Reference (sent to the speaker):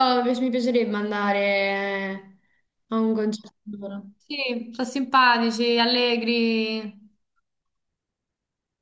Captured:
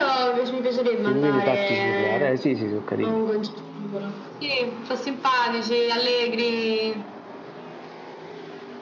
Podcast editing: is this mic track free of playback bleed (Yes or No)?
No